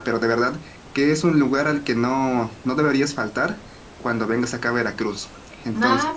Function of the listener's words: taking over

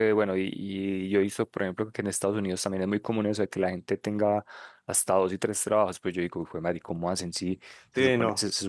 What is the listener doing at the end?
listening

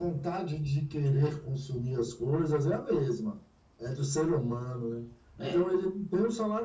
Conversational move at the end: listening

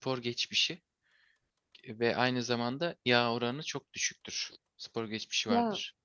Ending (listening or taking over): listening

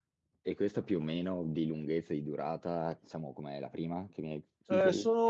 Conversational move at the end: taking over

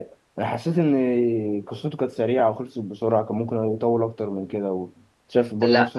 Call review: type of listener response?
taking over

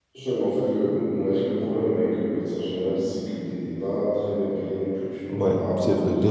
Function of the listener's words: taking over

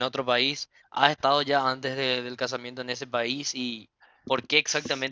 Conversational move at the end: listening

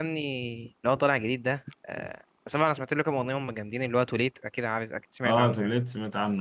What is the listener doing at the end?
taking over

